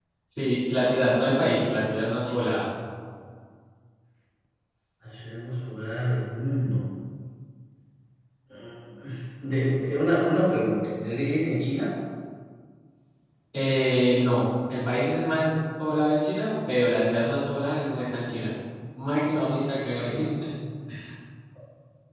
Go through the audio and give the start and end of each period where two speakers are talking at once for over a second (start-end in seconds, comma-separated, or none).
none